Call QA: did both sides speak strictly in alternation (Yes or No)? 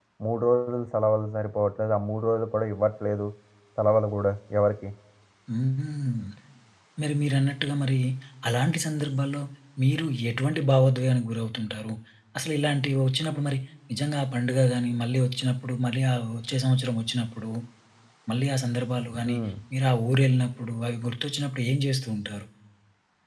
Yes